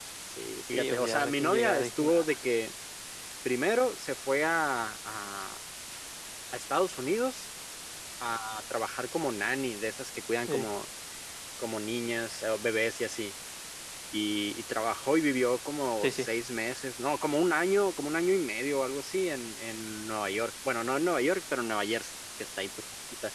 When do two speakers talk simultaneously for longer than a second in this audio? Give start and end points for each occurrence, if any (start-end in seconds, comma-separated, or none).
0.7-2.3